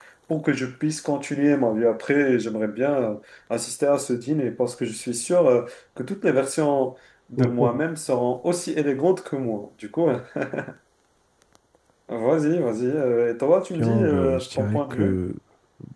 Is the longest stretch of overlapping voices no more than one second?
No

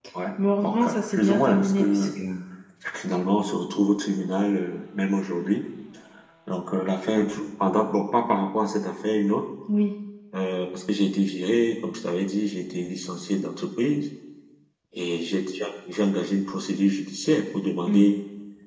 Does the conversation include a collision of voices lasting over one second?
Yes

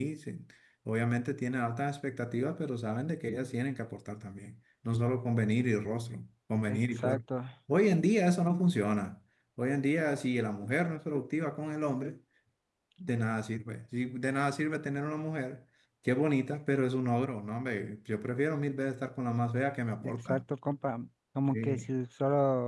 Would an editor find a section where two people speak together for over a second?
No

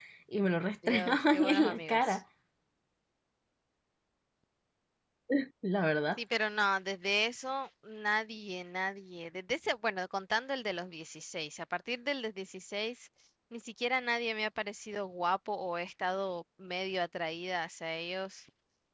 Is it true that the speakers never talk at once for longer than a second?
No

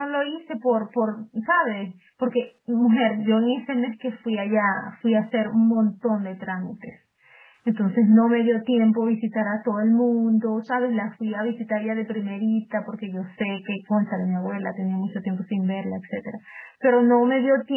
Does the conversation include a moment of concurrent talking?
No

